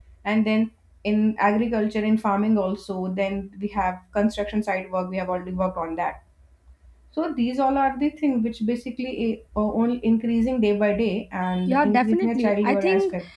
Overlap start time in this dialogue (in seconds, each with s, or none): 11.7 s